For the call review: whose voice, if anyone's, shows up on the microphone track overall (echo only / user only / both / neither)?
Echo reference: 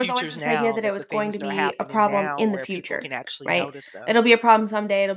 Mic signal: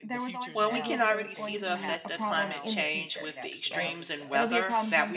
both